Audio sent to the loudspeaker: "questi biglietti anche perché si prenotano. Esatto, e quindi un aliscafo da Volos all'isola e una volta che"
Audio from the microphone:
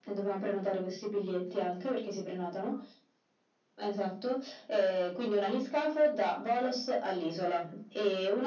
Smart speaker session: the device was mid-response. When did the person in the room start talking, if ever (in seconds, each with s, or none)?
none